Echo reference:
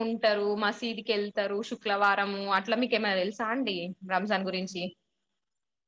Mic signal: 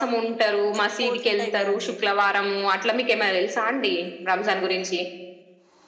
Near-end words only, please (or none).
స్పోర్ట్స్ ఉంటాయి కదా అండి